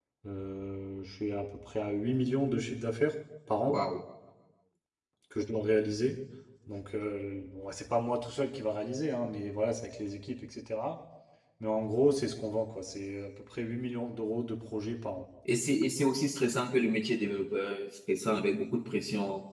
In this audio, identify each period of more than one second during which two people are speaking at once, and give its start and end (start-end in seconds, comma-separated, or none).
none